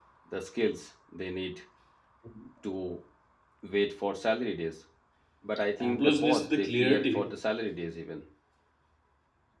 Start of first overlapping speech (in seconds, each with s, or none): 5.8 s